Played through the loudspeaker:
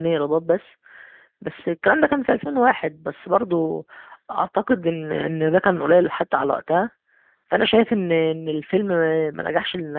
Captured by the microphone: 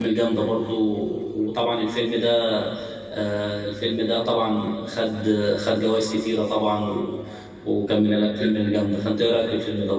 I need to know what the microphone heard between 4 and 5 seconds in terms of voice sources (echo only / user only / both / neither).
user only